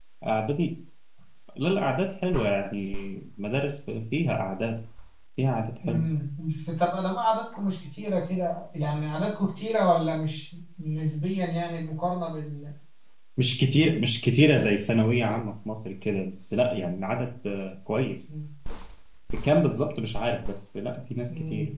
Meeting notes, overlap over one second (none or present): none